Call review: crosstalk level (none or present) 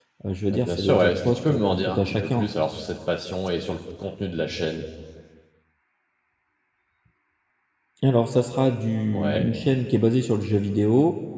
present